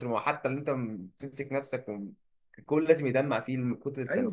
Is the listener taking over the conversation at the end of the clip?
Yes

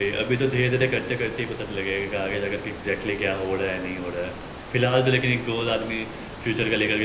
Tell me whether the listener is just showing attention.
Yes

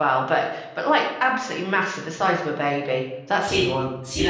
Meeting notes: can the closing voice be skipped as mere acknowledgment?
No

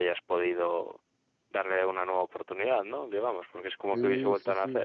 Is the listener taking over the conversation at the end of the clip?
Yes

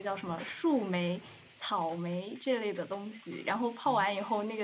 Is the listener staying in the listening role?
Yes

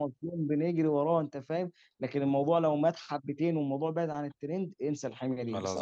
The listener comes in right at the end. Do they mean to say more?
No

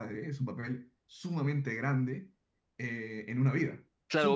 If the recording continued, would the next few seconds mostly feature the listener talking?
Yes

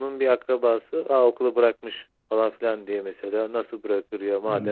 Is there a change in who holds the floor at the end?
No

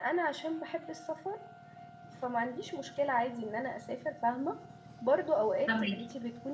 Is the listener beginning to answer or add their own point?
No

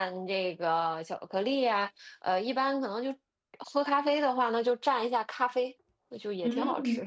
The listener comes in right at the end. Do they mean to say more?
Yes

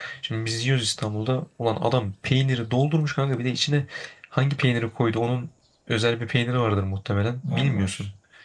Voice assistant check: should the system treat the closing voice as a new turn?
No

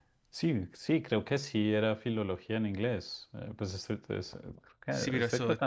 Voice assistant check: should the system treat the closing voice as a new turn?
Yes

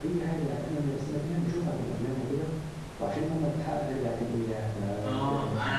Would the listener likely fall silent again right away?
No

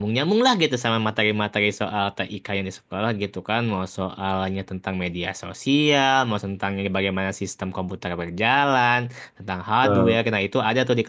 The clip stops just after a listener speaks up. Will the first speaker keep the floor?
Yes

